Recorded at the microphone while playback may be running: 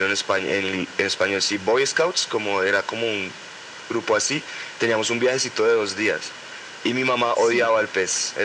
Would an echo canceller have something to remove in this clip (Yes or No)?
Yes